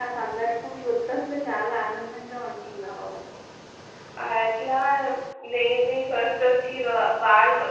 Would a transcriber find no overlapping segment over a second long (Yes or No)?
Yes